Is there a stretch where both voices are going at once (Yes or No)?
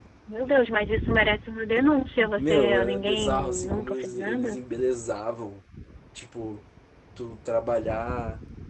Yes